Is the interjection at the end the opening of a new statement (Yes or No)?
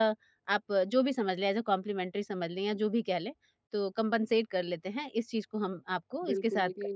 Yes